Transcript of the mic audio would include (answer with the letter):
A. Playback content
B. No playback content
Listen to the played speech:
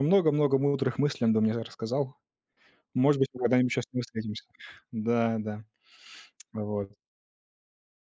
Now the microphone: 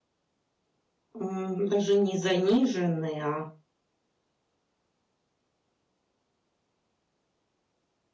B